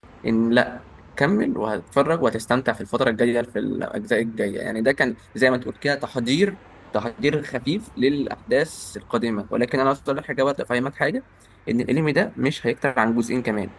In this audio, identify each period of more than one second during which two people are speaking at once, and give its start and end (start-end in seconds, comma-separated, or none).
none